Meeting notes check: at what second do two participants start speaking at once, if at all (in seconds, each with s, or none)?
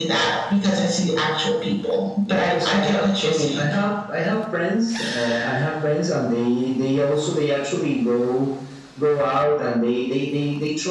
2.3 s